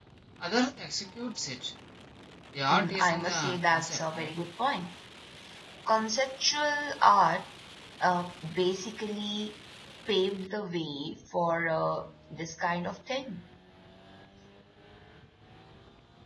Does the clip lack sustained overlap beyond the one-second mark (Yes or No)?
No